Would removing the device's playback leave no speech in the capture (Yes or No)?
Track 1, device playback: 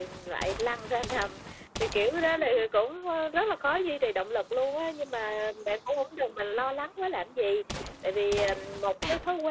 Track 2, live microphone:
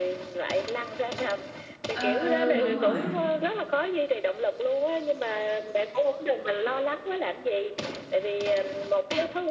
No